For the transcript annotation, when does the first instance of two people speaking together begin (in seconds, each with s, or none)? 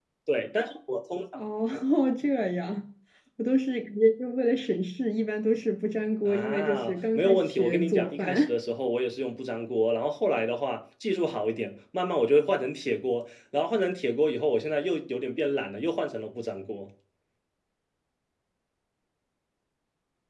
6.2 s